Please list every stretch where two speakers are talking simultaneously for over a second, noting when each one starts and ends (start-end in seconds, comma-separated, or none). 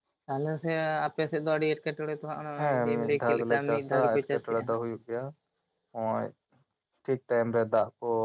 2.6-4.8